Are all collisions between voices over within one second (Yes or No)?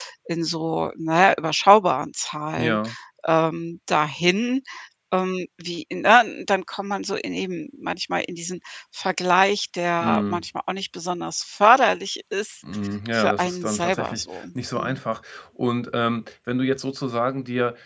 No